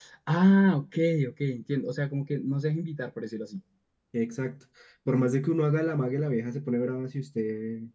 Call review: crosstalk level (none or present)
none